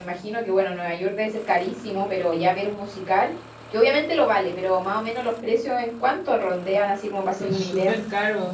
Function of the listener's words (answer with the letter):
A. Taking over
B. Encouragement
A